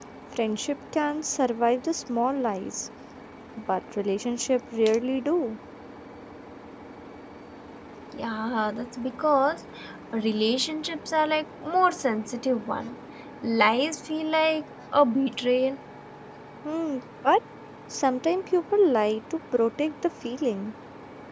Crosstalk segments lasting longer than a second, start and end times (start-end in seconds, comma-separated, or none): none